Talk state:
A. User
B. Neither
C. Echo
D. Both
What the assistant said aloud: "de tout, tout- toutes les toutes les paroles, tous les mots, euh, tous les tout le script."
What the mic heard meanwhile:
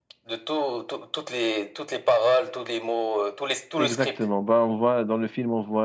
D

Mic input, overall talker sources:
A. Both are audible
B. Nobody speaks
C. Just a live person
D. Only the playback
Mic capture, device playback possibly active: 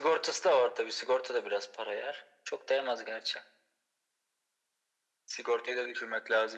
D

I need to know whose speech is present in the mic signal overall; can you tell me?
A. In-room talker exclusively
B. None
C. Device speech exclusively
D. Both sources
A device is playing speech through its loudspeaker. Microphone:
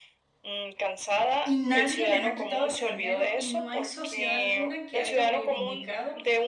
D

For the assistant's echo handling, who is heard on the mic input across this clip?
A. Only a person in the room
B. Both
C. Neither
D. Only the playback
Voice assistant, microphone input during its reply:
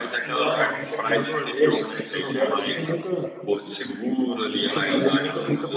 D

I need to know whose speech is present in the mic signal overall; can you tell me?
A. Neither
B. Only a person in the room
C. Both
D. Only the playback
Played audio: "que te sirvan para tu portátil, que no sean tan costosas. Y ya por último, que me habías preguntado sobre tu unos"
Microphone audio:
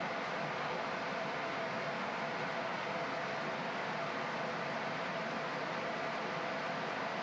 A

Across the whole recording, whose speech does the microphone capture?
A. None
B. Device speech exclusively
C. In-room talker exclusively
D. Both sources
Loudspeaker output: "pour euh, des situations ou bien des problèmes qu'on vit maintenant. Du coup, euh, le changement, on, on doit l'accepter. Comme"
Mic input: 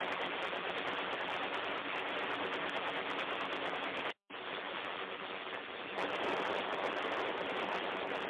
A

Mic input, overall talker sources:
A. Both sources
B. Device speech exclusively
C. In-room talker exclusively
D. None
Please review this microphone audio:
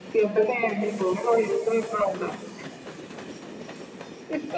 B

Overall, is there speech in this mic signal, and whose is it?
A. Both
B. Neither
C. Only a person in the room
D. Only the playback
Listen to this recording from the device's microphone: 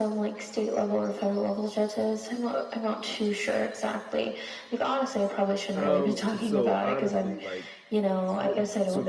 A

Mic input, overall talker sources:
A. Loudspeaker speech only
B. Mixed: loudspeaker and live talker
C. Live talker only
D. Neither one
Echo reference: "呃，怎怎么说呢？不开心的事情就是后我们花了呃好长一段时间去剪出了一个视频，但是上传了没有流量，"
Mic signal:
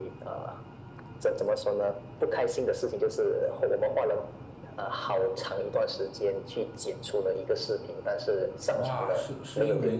B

